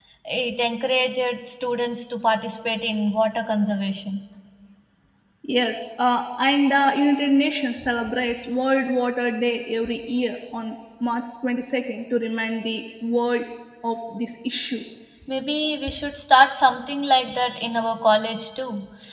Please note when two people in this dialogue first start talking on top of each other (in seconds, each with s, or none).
none